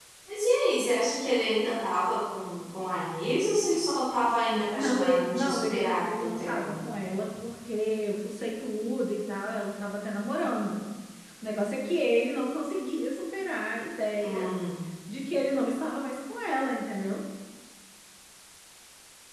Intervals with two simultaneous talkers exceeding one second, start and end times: 4.7-6.9

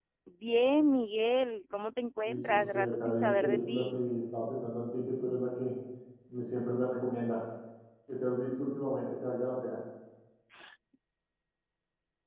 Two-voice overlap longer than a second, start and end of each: 2.2-4.0

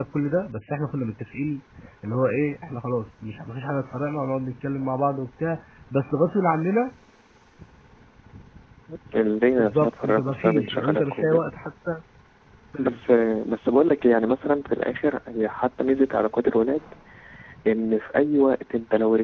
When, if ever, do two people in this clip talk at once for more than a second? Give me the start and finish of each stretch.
9.6-11.4

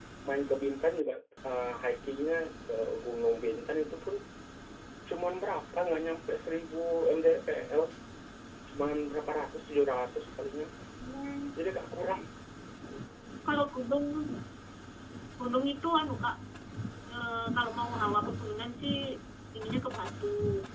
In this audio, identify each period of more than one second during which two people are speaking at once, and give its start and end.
none

